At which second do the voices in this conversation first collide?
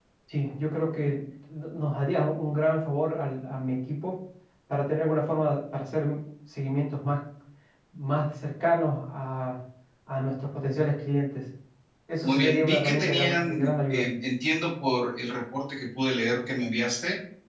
12 s

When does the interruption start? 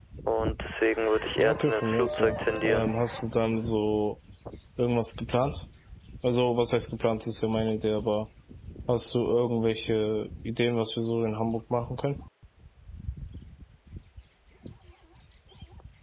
1 s

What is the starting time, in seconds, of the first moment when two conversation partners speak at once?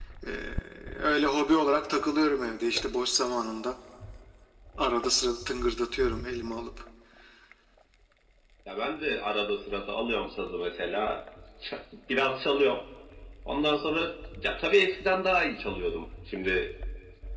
none

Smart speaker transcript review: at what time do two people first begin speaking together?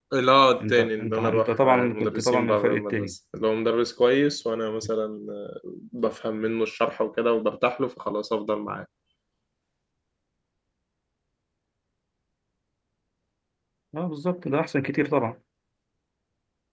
1 s

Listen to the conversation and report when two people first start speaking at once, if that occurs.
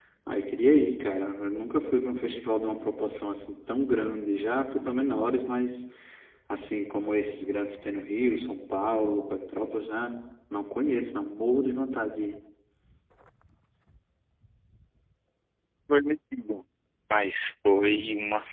none

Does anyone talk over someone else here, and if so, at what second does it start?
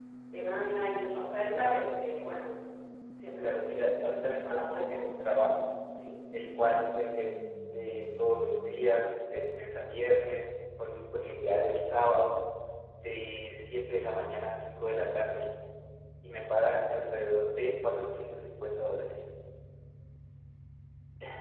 3 s

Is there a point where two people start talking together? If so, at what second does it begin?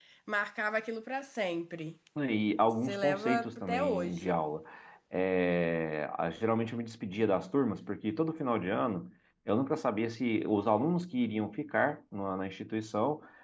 3 s

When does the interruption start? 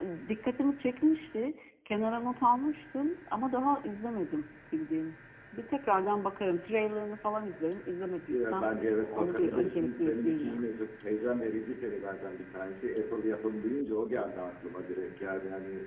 8 s

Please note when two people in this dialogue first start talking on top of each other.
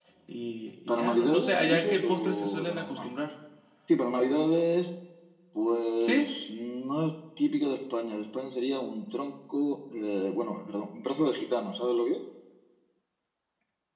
1 s

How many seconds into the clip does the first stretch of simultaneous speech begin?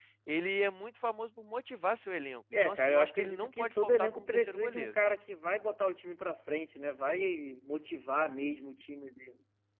3 s

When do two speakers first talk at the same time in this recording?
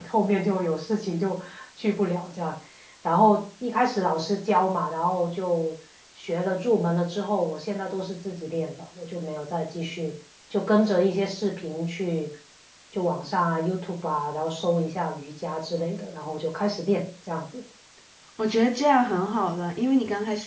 none

